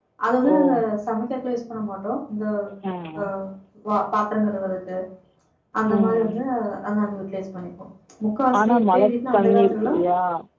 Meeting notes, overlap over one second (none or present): present